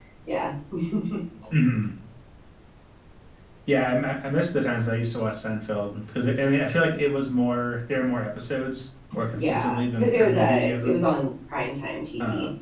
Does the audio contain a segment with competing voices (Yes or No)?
Yes